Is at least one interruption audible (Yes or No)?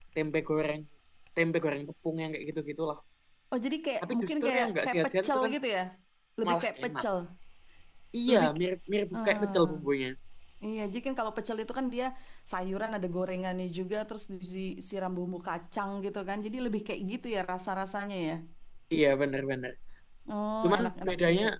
Yes